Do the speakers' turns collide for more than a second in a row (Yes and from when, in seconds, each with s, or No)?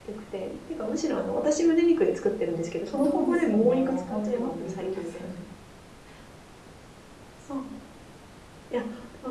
Yes, from 2.9 s